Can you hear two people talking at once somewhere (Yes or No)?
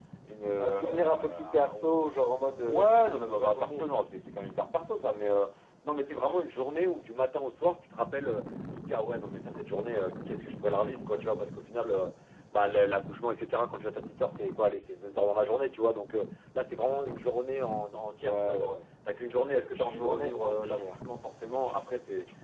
Yes